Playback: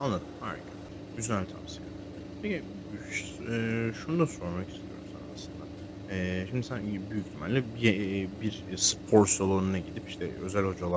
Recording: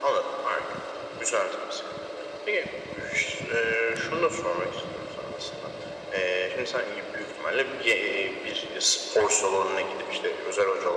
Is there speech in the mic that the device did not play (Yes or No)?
No